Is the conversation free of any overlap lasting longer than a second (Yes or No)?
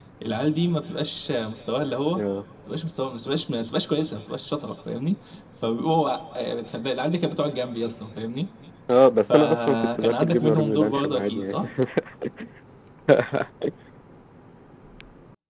No